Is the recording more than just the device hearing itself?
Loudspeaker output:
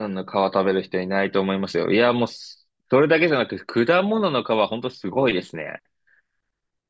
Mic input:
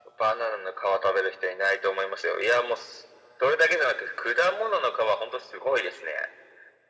No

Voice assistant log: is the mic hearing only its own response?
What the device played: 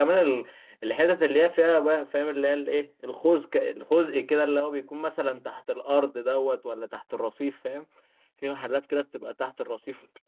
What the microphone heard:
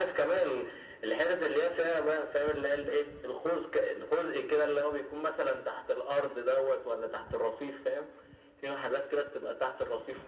Yes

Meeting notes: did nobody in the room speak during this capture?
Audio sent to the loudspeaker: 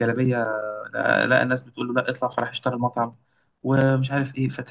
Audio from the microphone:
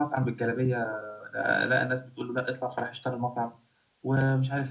Yes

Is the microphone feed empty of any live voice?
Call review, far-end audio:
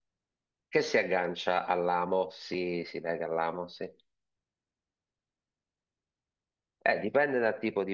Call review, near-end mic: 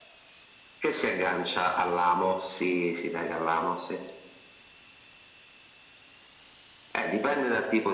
Yes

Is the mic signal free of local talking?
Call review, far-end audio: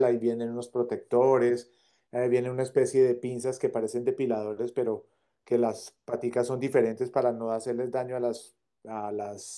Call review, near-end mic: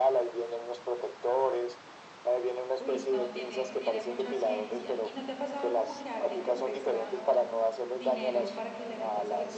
No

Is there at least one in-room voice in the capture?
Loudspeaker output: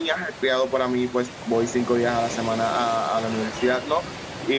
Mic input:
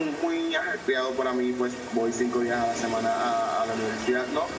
No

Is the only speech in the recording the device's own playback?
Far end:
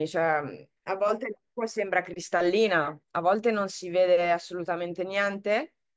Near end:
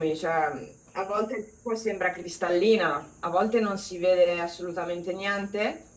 Yes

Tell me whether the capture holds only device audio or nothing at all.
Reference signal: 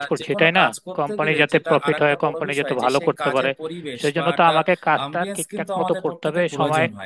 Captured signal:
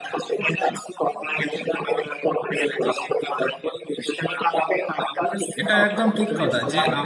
No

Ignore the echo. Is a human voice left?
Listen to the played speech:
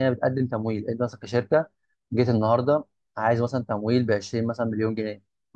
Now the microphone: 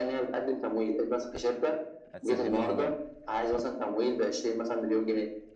Yes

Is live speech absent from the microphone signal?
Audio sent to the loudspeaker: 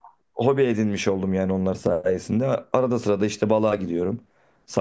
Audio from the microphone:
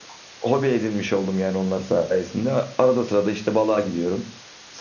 Yes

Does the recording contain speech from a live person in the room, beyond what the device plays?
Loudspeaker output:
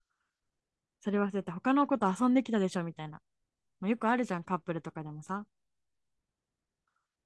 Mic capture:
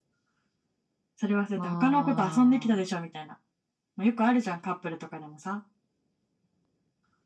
Yes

